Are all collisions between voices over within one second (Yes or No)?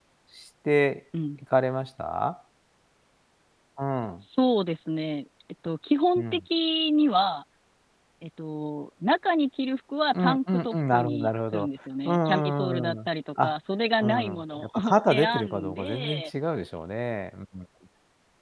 No